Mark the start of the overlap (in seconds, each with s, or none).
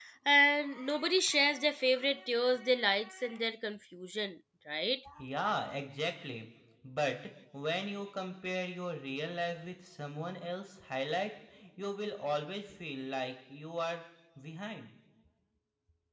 none